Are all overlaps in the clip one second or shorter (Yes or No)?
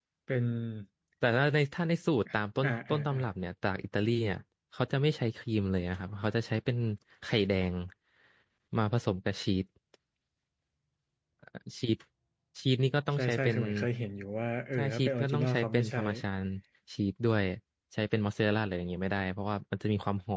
No